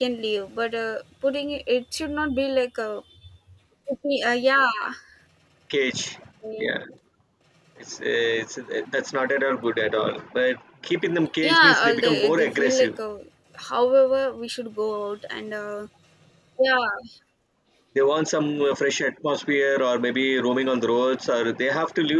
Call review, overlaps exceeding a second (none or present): present